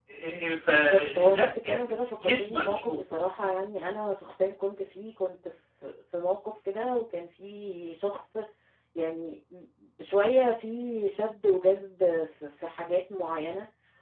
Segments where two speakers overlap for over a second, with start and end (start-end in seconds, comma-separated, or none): 0.7-3.0